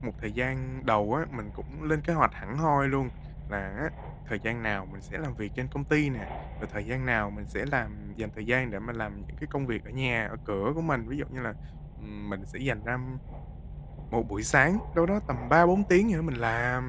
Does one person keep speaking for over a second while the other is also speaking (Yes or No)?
No